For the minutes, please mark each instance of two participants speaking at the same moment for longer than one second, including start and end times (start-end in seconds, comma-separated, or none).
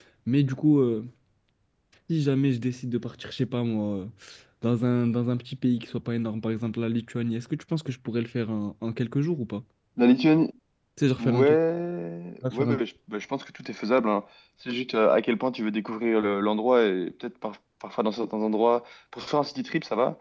none